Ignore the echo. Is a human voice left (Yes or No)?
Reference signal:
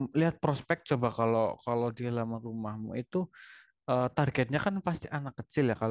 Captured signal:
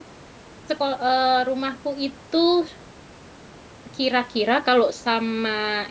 Yes